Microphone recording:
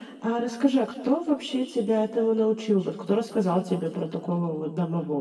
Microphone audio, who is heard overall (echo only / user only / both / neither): echo only